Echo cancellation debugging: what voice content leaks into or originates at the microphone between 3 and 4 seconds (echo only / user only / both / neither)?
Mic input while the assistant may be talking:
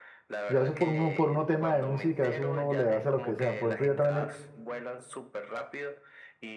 both